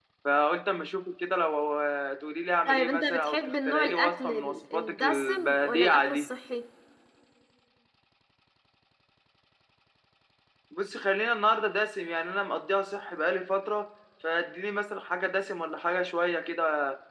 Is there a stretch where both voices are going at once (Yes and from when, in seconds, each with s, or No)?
Yes, from 2.6 s